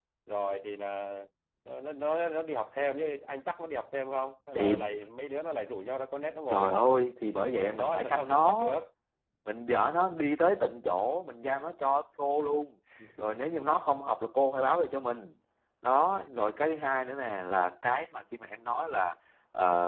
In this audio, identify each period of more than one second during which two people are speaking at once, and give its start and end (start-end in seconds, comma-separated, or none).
7.3-8.6